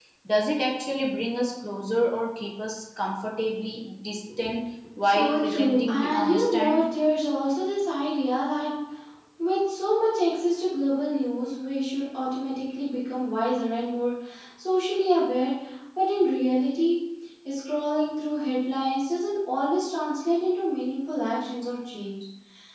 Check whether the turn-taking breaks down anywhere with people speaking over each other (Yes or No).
Yes